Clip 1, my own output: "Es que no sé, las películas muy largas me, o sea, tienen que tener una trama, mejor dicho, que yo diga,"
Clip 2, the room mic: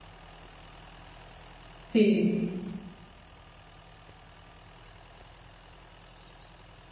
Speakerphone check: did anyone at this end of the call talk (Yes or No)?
Yes